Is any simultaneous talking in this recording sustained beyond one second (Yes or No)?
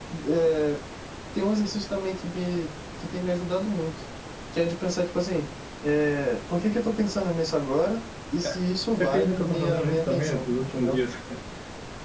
Yes